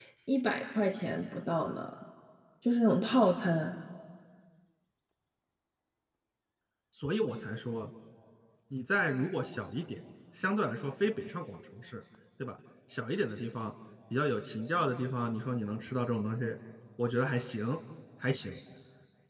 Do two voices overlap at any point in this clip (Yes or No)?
No